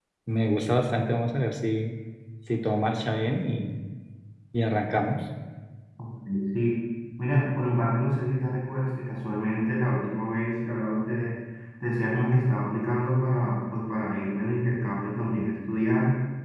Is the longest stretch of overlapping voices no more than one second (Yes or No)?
Yes